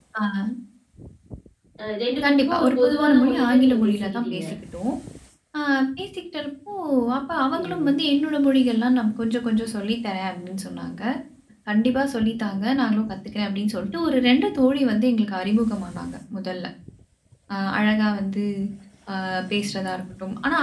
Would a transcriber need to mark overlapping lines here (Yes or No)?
Yes